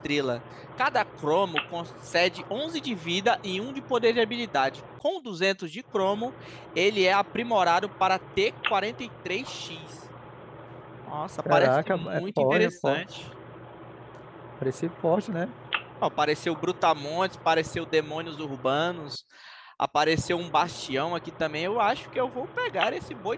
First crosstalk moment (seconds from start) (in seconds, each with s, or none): 11.5 s